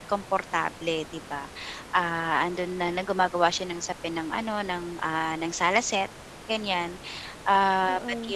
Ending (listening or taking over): listening